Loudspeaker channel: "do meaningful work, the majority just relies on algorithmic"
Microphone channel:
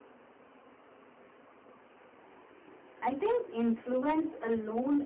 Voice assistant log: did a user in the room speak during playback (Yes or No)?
Yes